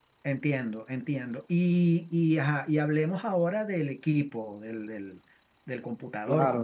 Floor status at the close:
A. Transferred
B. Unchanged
A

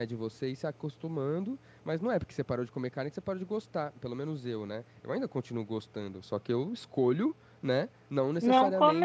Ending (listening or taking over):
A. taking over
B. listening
B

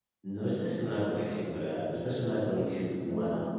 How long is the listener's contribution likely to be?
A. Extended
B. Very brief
B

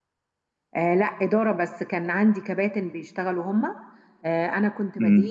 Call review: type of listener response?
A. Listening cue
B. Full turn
A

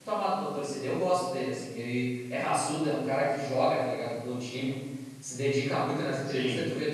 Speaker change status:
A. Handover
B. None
B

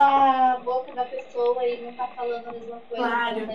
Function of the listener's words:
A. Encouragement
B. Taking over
B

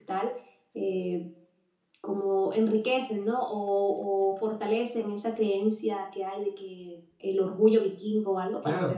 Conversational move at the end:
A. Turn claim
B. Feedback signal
A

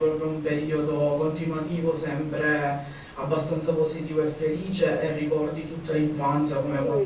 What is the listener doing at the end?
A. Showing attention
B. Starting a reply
B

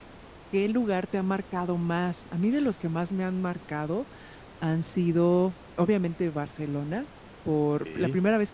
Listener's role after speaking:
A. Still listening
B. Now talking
A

